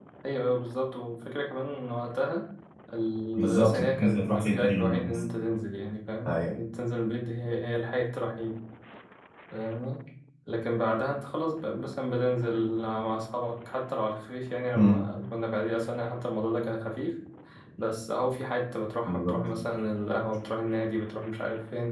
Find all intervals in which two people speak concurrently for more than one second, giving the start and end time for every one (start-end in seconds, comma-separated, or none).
3.4-5.2